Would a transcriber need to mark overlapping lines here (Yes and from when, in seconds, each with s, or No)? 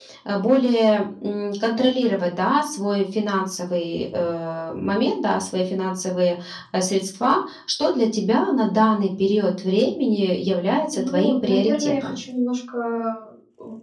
Yes, from 10.9 s